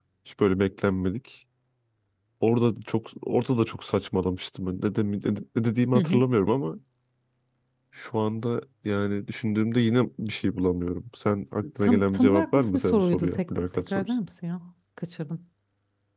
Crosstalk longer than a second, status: present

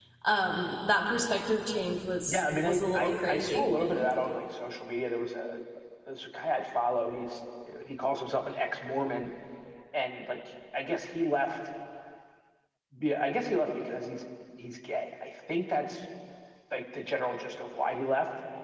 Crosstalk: present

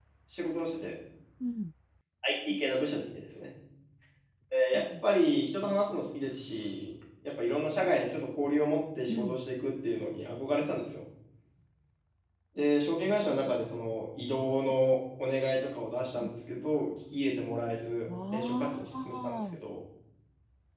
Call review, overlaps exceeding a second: present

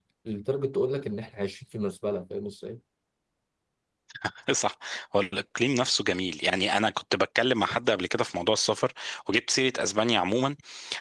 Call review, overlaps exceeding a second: none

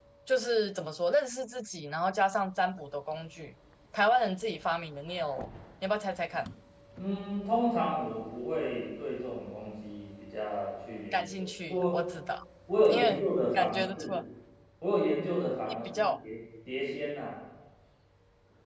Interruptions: present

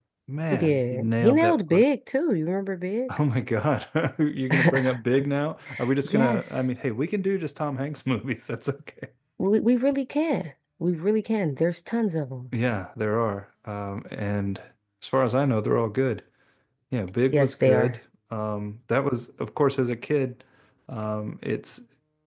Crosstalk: present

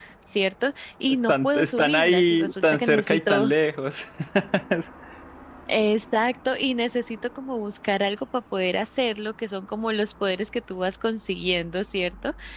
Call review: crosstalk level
present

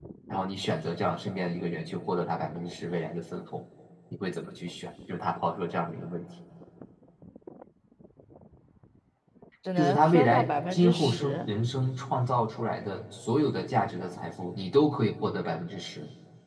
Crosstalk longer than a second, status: present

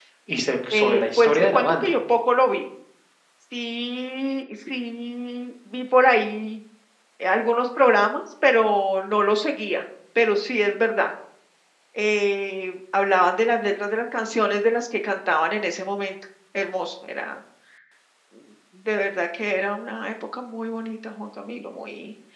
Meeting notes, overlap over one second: present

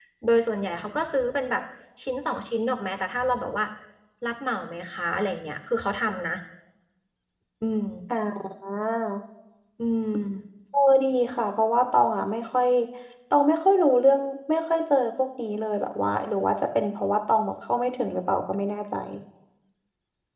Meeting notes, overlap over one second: none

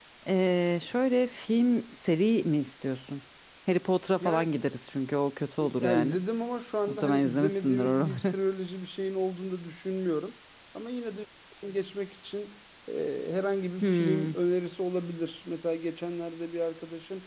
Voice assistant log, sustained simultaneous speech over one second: present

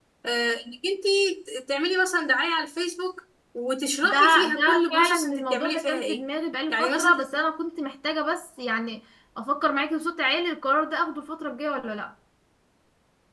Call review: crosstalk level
present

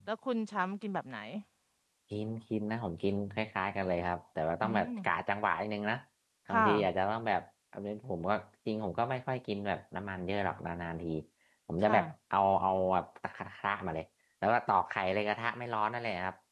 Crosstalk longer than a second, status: none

